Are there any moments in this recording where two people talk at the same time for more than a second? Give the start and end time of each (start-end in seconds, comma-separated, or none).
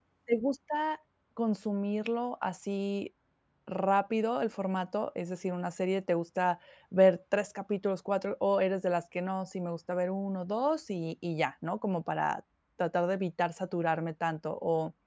none